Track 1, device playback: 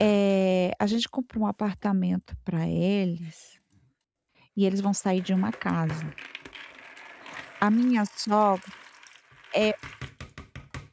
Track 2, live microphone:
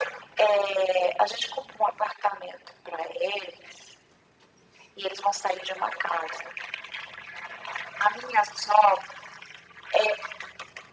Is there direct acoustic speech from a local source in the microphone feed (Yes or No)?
No